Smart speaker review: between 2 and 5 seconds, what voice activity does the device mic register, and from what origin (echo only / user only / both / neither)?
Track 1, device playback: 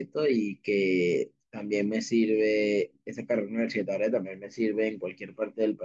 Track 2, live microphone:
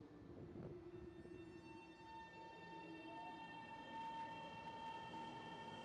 neither